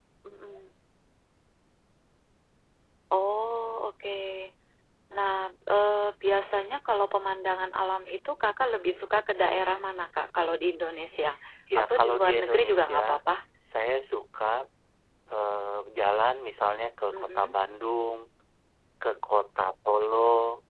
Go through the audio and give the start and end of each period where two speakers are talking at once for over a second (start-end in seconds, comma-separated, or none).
11.8-13.2